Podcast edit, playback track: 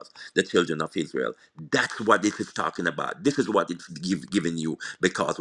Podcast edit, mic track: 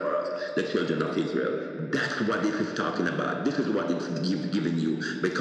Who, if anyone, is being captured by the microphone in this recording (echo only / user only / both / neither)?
echo only